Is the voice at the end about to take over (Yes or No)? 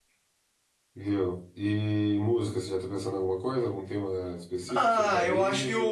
Yes